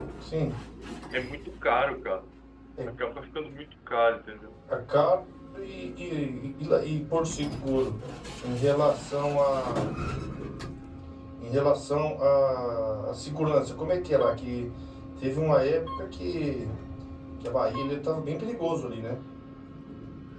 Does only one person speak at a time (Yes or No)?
Yes